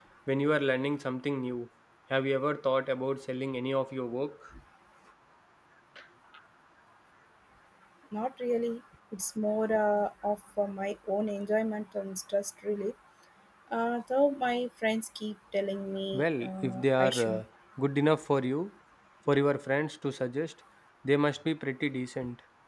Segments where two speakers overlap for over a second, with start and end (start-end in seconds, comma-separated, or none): 16.1-17.4